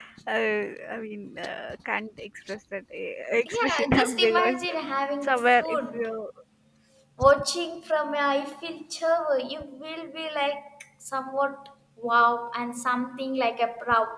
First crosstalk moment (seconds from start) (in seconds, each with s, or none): 3.5 s